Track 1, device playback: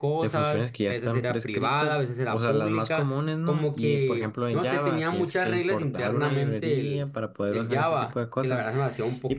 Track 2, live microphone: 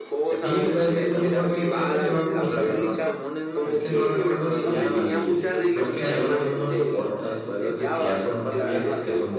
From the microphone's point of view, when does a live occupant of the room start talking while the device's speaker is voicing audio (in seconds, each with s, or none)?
0.3 s